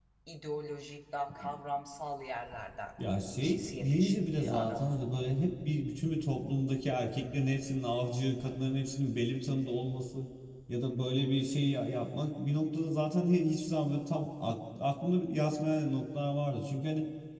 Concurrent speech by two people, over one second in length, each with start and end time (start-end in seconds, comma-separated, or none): 3.4-5.1